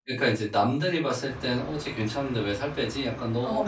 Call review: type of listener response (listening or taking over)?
listening